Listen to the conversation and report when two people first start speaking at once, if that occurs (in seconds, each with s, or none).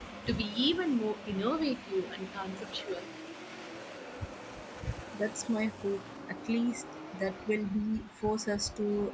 none